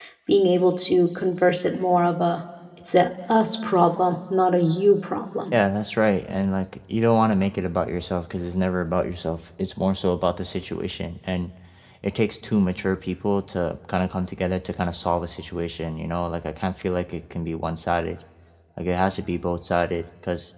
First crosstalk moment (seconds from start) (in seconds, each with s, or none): none